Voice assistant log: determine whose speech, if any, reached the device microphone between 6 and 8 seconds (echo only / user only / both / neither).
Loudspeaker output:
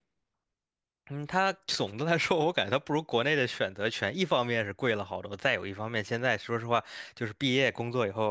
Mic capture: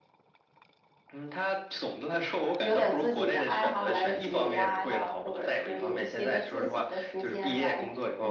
both